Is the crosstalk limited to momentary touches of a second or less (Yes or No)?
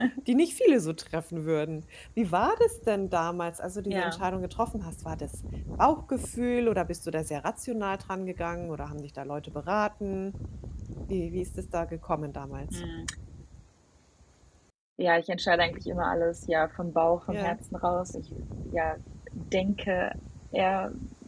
Yes